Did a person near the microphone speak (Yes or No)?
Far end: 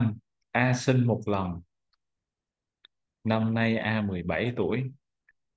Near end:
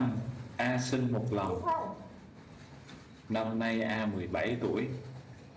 Yes